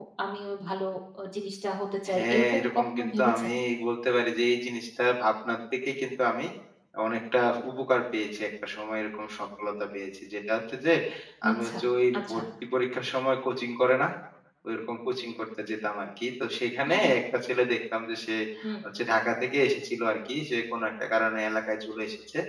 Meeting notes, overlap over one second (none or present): present